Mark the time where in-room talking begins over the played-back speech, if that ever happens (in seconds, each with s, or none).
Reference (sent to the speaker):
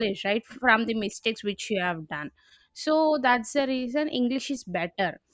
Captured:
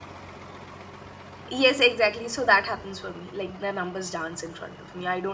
1.5 s